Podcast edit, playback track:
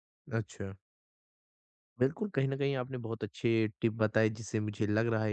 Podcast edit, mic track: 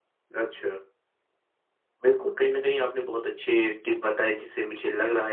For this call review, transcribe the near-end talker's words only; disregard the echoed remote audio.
none

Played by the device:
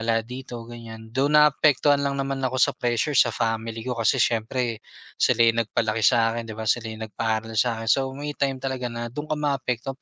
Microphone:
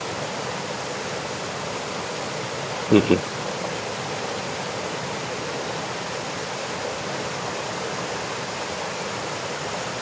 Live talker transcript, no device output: mm.

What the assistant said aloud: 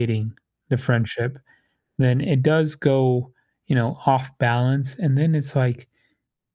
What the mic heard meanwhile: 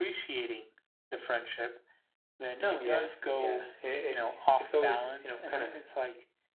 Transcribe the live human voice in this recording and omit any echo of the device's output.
No, yeah. Yeah. It, it's, it's always, you know, kind of

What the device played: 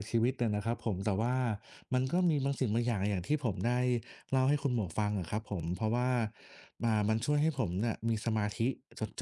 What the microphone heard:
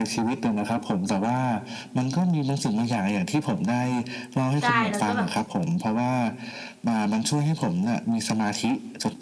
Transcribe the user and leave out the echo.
ใช่แล้วก็แบบ

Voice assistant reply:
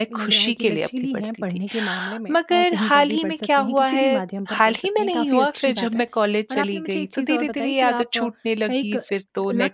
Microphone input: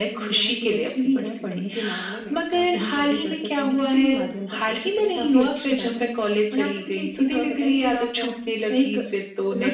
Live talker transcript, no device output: none

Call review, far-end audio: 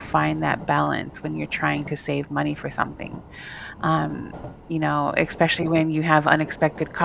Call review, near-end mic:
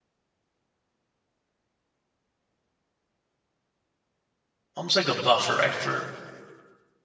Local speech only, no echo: almost like a buffer, right, for

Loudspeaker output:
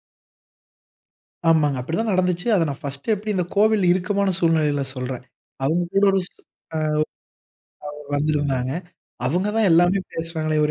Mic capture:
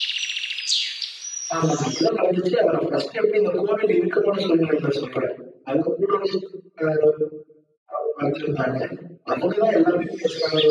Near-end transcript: none

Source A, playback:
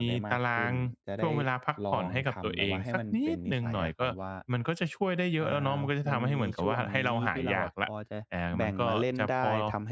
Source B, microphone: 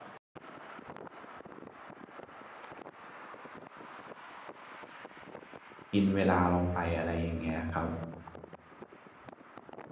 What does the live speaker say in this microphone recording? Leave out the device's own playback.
กินเวลาเราไปอะไรอย่างเงี้ยครับ

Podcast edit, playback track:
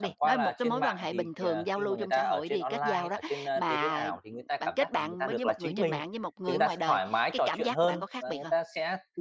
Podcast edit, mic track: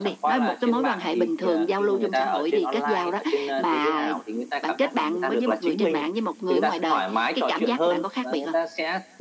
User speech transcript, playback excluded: none

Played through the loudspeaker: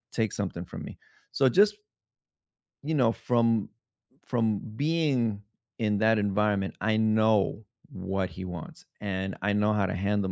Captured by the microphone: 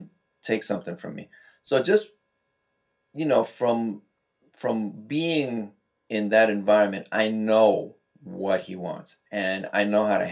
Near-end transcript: none

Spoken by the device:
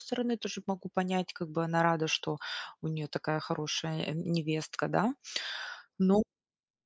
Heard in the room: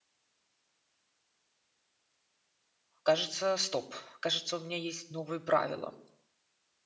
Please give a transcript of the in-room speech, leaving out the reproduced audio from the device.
кажется, стоп, кажется, у меня есть новые правила.

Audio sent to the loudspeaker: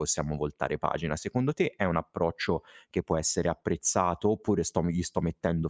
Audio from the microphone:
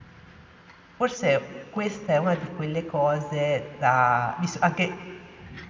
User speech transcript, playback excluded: forse questa è una di quelle cose da visto anche

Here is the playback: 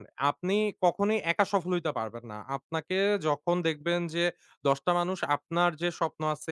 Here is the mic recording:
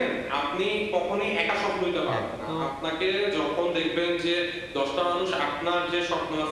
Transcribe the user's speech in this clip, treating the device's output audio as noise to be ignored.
হ্যাঁ, তো

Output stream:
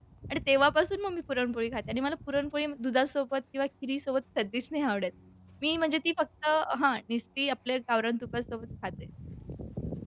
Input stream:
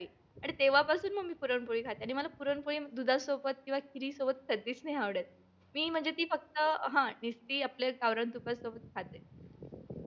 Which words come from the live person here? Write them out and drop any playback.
none

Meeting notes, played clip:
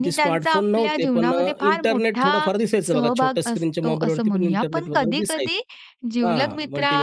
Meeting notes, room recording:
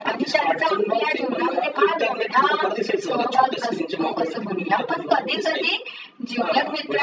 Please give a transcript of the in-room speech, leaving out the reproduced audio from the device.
none

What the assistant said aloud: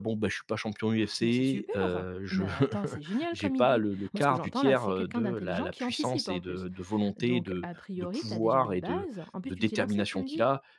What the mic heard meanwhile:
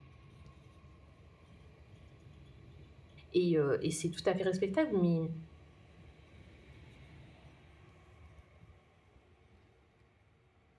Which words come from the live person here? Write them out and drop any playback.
et heu et c'est tout à fait respectable, mais

